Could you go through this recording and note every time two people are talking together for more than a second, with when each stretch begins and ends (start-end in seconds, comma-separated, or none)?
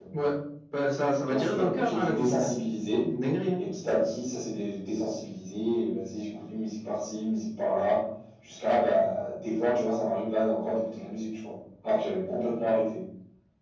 1.2-2.5